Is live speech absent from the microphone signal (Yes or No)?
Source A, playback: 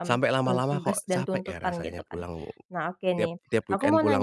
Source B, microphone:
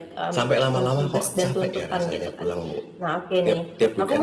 Yes